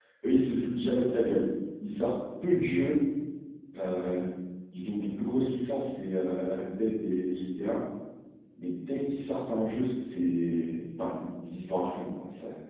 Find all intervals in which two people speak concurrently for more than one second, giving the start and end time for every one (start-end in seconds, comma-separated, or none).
none